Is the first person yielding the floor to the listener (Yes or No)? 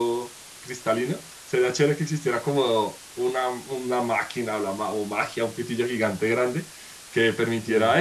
No